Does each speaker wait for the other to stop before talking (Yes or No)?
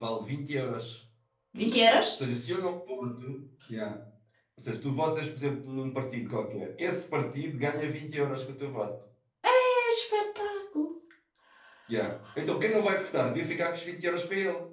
Yes